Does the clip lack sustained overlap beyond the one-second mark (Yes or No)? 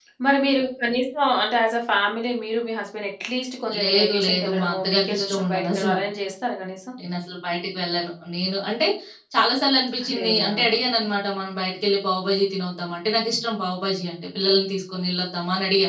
No